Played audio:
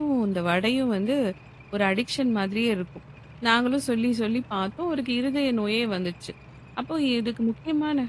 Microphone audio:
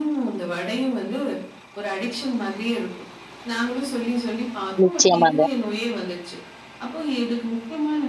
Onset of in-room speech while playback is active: 4.8 s

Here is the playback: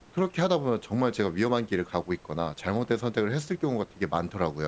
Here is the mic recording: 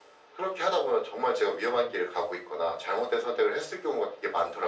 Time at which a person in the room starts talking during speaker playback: none

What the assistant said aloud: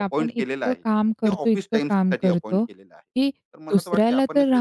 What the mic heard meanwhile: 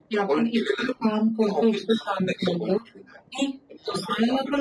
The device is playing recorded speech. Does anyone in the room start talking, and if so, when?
none

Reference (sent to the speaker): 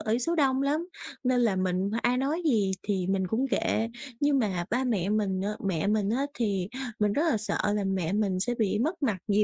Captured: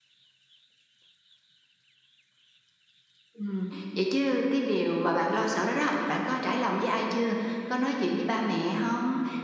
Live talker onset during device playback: 3.3 s

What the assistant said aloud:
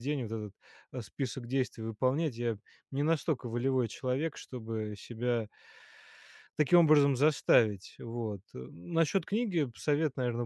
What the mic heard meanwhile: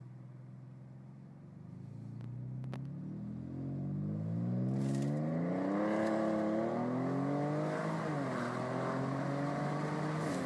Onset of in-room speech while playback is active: none

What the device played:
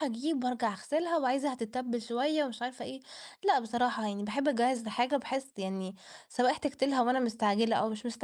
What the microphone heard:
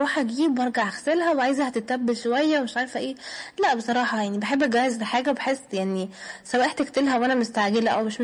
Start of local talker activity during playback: none

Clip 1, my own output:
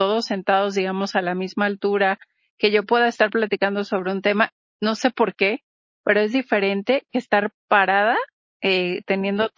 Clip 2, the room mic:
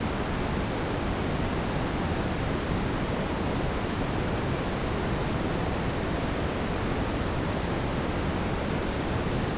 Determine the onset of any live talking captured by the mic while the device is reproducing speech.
none

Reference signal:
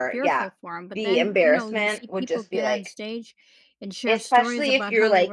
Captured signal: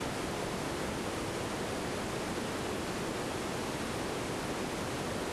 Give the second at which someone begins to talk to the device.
none

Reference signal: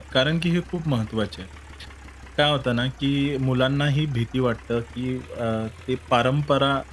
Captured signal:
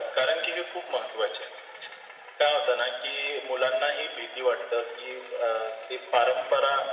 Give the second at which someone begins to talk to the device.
none

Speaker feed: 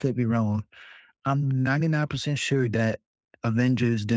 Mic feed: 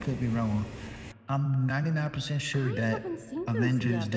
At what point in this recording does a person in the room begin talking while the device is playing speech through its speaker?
2.6 s

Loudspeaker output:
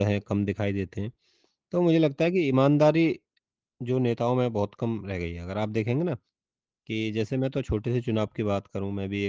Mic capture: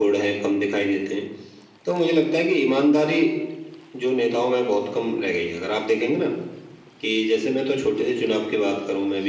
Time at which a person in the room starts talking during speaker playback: none

